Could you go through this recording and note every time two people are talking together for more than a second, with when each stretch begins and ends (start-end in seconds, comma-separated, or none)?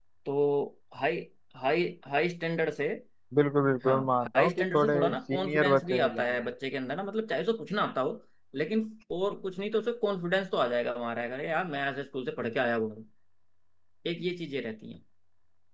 4.3-6.4